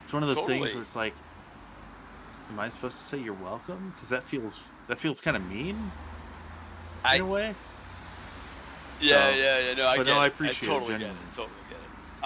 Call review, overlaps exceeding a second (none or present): present